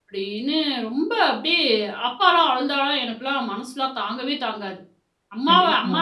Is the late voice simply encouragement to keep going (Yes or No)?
Yes